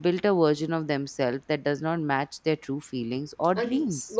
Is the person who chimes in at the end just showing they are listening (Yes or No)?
No